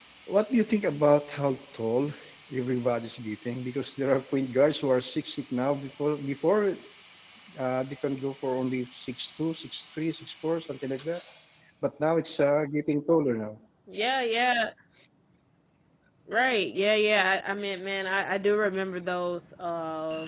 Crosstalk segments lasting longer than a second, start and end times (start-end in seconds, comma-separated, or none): none